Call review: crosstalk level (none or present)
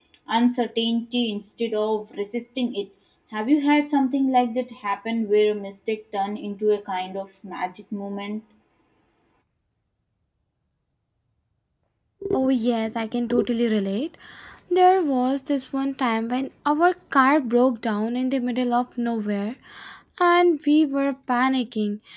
none